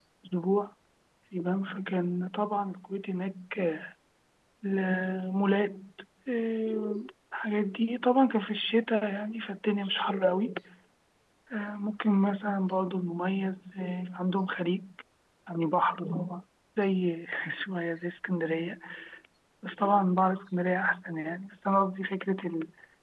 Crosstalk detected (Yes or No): No